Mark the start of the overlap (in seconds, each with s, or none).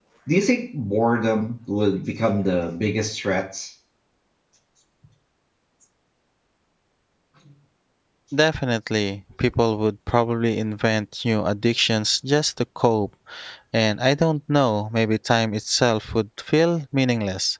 none